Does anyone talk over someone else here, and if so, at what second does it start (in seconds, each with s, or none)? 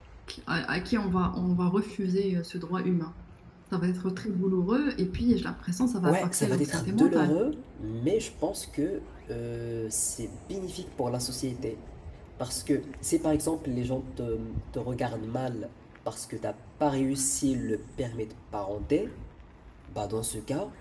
6.0 s